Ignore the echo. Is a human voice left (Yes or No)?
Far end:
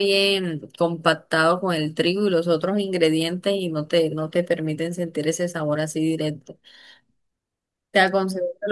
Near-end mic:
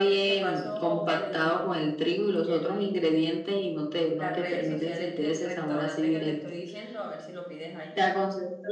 Yes